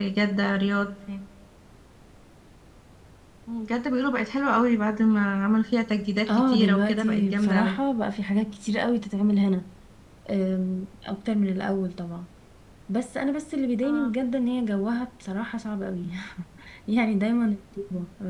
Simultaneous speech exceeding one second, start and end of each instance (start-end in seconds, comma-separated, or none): 6.3-7.8